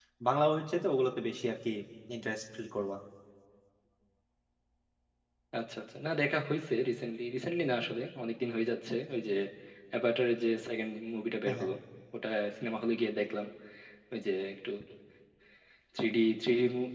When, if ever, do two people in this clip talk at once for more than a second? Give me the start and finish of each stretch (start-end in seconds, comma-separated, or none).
none